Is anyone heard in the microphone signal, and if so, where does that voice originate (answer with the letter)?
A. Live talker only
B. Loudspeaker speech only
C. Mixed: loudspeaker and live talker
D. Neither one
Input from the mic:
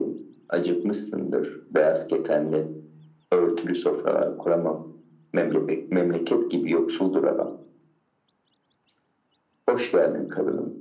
B